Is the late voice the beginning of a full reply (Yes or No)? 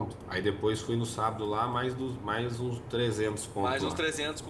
Yes